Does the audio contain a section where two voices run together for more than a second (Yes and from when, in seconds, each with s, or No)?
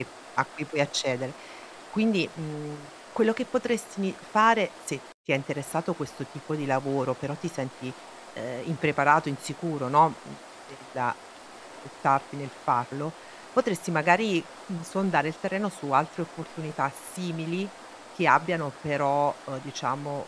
No